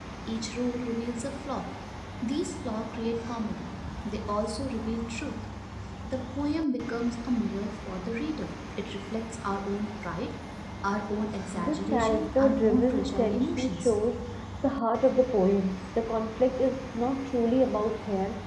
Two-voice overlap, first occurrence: 11.5 s

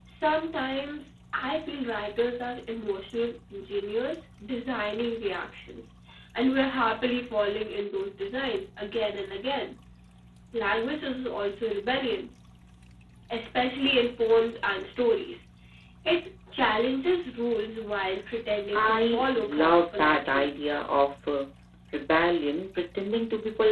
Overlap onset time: 18.7 s

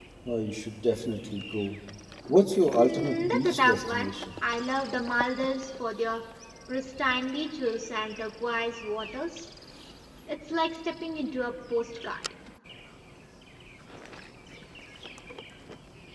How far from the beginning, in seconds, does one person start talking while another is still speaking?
2.8 s

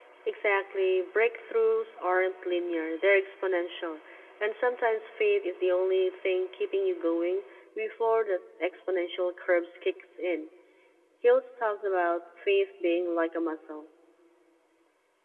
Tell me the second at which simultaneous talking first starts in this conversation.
none

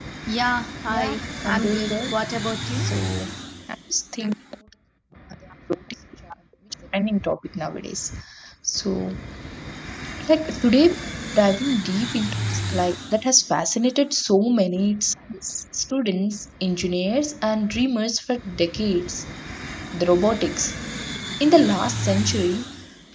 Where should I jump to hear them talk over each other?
0.9 s

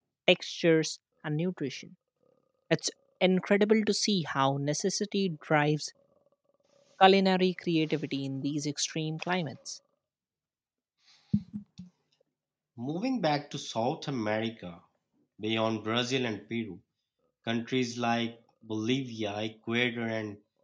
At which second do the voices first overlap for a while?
none

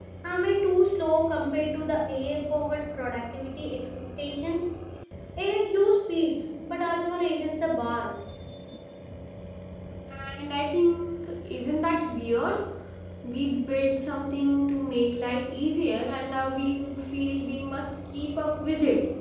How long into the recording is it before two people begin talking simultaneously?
none

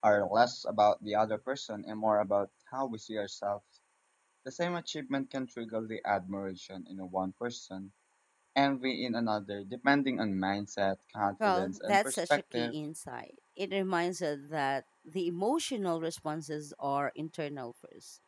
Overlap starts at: 11.4 s

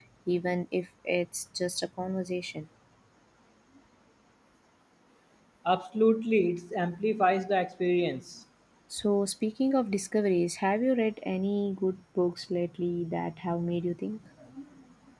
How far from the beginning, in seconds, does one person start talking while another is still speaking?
none

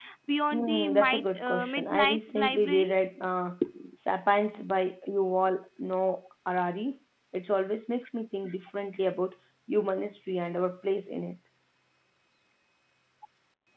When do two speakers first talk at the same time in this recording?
0.5 s

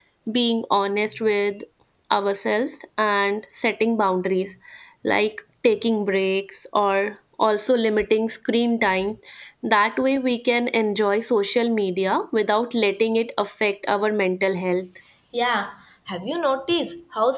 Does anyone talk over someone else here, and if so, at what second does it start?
none

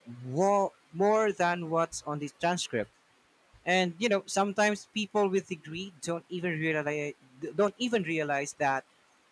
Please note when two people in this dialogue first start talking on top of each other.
none

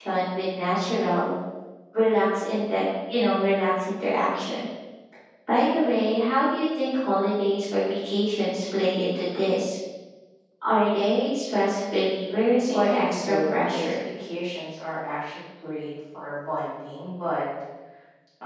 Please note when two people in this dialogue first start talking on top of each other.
12.6 s

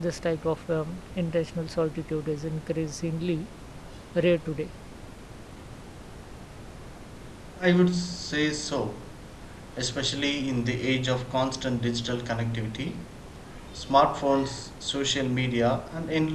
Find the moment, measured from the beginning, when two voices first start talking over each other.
none

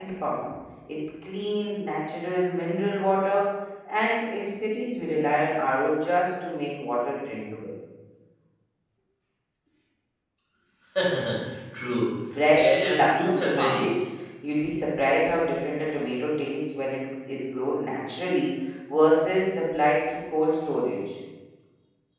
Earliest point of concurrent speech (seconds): 12.6 s

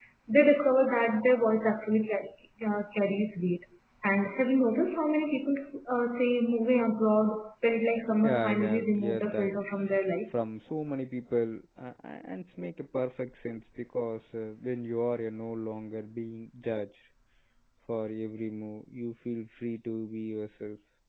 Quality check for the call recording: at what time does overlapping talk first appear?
8.1 s

